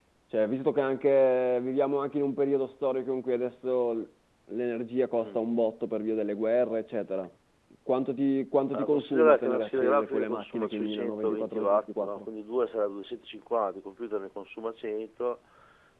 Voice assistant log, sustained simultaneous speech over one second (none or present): present